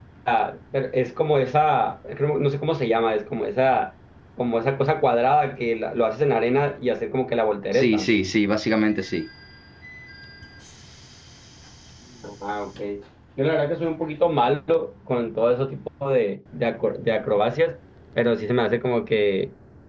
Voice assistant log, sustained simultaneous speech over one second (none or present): none